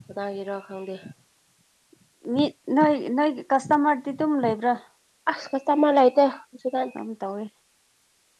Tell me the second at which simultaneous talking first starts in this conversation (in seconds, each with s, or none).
none